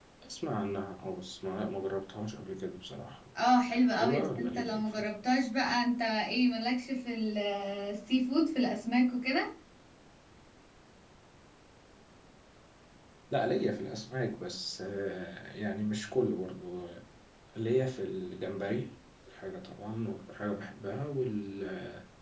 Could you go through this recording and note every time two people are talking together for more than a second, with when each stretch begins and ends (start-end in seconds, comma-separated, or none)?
3.7-4.9